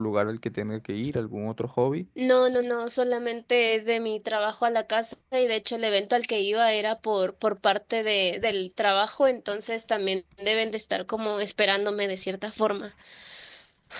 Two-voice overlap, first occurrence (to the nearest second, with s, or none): none